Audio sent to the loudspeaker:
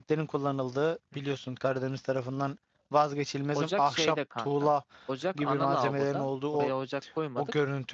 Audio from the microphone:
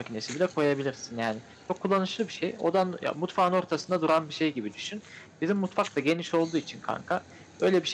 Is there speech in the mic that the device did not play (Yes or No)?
Yes